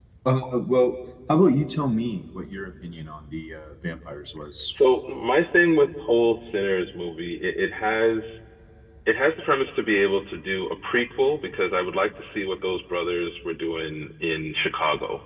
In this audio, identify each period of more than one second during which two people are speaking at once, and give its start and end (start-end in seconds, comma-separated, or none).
none